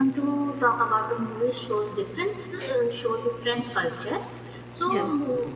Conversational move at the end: listening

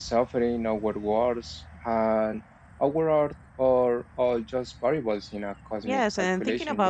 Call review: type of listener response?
taking over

